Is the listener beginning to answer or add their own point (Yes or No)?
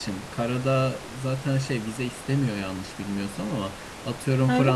No